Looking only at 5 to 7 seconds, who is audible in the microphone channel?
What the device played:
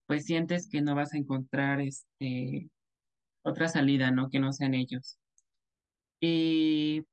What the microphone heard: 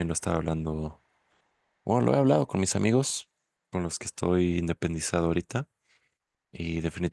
user only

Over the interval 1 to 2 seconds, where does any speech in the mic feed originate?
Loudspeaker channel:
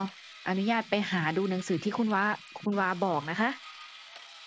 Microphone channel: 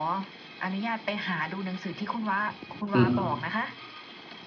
echo only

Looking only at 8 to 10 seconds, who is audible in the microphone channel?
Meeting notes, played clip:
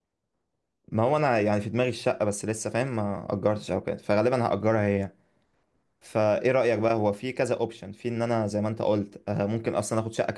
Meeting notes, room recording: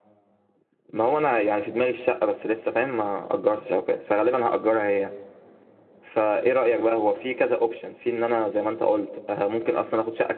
echo only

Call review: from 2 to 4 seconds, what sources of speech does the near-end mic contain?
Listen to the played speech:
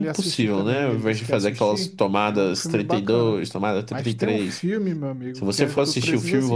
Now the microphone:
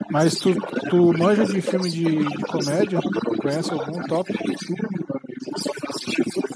both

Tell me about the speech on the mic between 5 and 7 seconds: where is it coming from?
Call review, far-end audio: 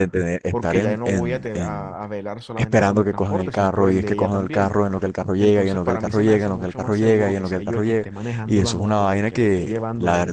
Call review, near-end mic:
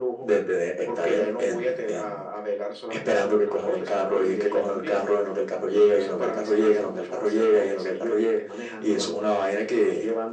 echo only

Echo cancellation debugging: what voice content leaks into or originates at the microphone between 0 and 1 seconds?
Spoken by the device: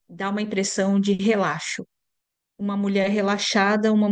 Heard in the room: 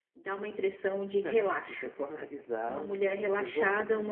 echo only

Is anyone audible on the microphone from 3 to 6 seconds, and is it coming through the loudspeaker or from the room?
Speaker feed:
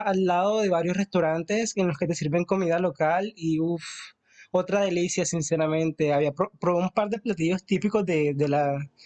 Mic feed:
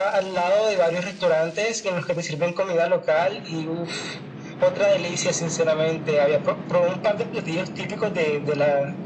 echo only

